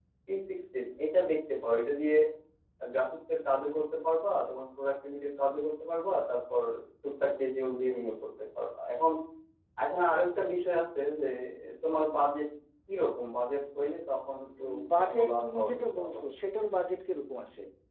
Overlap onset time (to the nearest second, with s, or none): 15 s